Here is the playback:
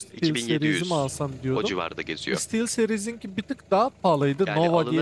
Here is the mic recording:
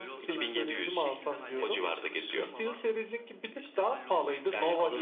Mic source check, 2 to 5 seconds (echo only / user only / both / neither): both